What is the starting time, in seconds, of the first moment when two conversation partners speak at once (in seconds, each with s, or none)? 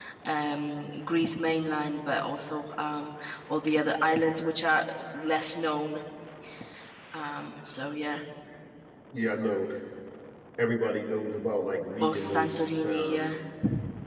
12.0 s